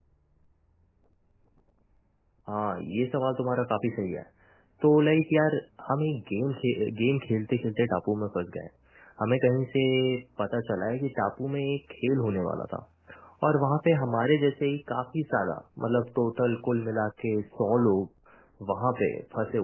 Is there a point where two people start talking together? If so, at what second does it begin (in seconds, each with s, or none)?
none